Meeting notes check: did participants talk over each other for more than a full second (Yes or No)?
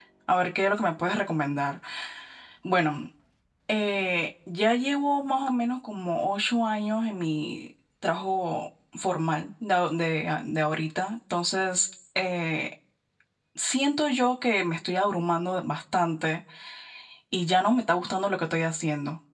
No